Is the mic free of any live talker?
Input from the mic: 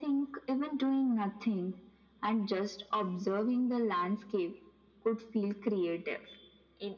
Yes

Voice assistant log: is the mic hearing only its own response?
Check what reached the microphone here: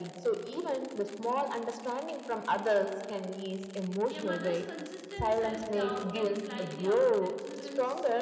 No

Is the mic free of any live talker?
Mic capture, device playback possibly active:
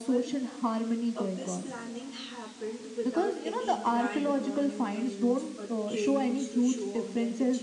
No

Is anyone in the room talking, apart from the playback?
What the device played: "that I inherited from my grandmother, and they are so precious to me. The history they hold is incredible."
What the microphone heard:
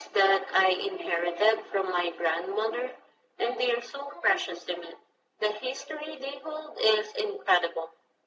No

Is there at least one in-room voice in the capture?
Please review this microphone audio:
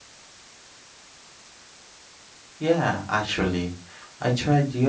Yes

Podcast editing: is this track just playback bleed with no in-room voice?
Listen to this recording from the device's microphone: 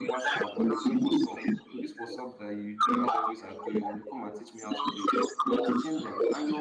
No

